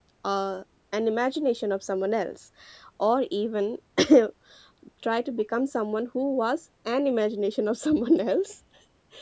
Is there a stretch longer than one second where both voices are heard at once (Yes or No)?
No